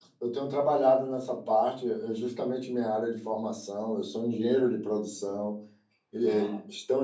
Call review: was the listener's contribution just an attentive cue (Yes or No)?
Yes